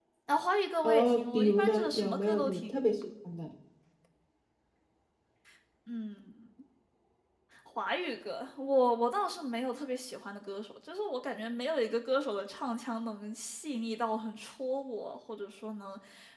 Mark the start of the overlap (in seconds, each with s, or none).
0.8 s